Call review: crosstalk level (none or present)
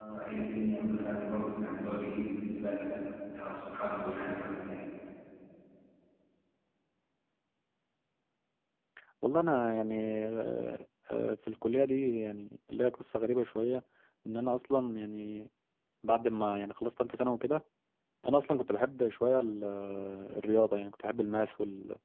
none